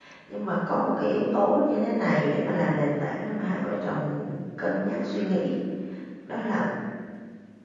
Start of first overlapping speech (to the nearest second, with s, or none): none